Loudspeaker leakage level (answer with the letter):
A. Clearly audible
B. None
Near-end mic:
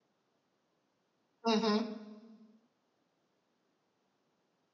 B